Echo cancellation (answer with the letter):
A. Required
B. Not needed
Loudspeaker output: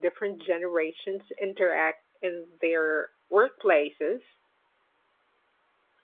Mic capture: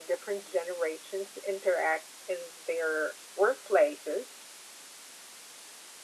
A